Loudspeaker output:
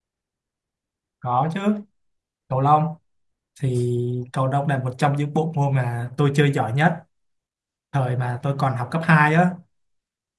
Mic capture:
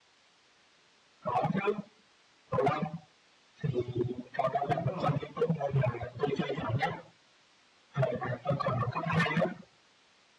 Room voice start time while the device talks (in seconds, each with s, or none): 4.6 s